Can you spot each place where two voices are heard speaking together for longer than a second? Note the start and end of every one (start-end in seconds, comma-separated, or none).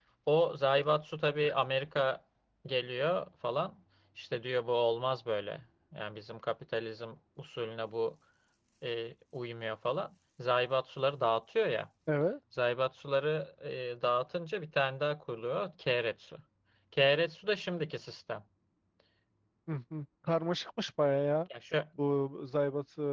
none